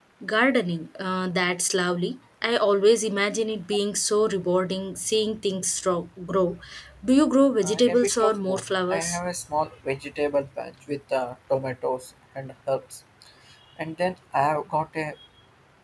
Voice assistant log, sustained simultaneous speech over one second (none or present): present